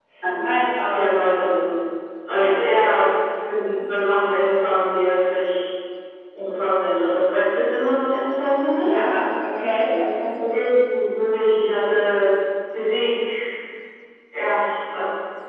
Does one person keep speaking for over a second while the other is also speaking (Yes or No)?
No